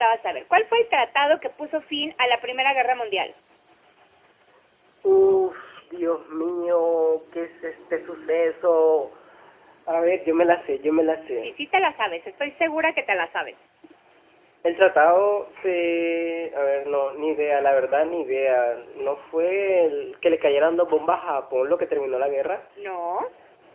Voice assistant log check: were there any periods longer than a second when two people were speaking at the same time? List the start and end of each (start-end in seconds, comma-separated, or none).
none